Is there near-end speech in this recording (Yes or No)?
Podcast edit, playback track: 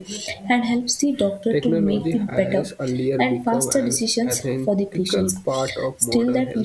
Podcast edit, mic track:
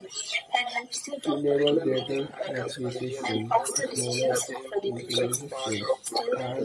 Yes